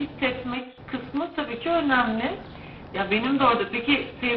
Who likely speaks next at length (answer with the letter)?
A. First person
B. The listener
A